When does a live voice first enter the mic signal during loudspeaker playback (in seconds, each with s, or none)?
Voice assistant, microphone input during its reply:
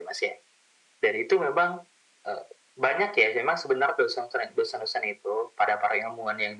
none